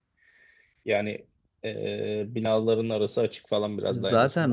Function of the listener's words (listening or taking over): taking over